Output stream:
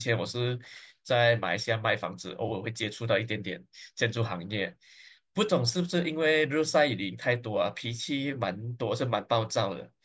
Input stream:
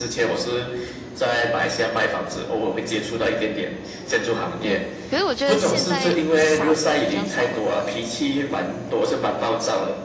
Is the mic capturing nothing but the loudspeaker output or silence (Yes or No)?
No